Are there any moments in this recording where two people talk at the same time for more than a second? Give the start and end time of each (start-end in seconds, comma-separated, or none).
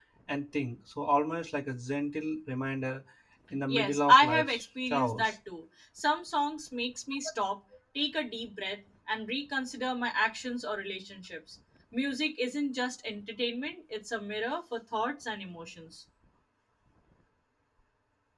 3.7-5.3